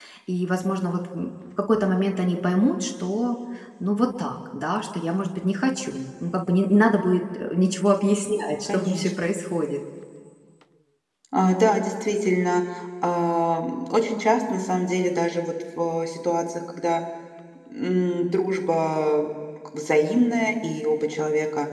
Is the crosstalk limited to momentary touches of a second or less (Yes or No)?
Yes